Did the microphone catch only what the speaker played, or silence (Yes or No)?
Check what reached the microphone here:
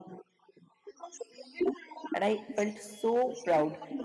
No